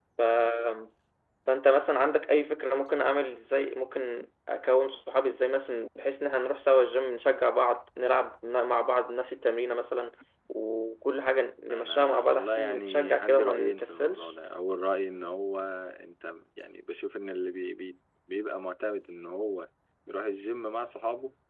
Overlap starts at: 11.7 s

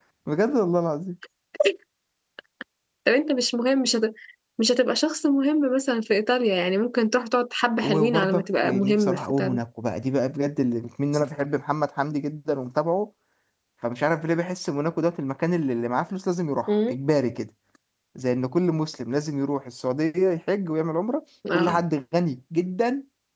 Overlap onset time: 7.8 s

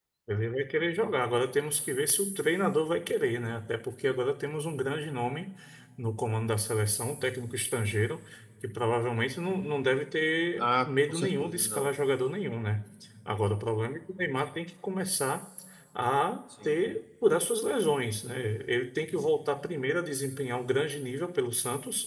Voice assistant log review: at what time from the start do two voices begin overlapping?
10.6 s

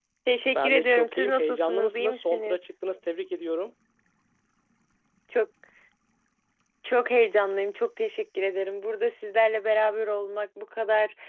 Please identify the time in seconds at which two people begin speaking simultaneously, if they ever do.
0.6 s

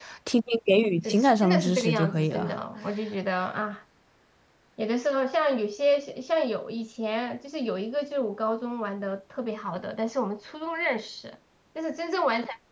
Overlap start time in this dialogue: 1.0 s

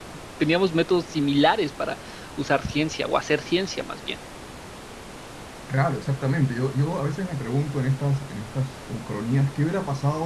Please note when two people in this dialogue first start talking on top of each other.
none

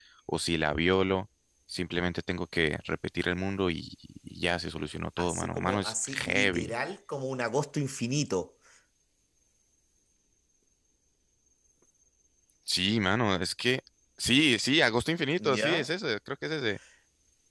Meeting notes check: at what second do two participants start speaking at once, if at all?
5.2 s

